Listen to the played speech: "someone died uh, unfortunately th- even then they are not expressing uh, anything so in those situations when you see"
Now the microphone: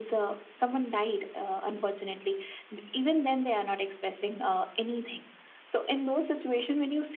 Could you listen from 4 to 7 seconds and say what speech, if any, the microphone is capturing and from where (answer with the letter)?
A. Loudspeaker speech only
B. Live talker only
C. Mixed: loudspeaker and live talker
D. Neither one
A